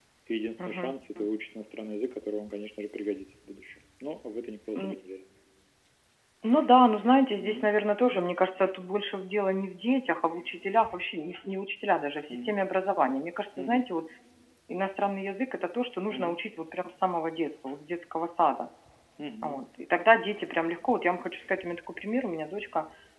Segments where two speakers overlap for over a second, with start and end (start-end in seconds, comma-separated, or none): none